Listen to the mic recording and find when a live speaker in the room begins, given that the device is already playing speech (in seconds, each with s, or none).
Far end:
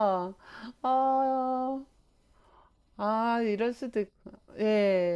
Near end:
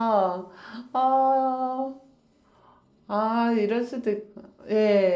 none